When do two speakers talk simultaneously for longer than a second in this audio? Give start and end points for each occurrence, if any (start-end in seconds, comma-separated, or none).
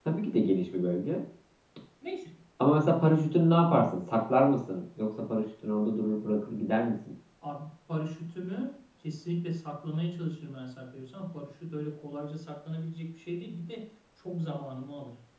none